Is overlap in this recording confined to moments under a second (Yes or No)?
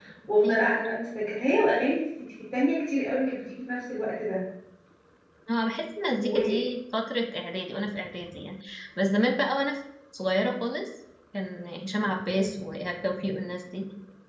Yes